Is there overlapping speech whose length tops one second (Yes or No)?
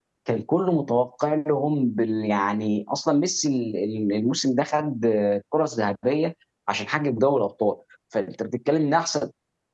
No